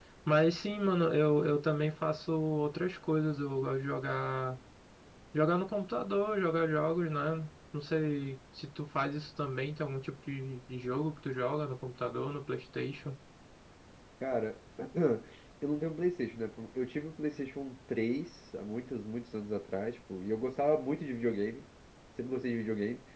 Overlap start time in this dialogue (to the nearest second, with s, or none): none